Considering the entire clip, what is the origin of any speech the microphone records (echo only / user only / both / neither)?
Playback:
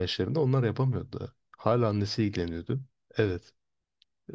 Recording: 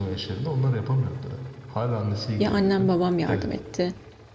both